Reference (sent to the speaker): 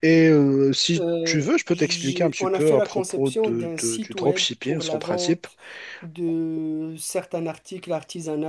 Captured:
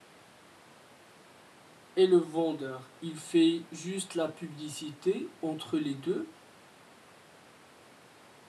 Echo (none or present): none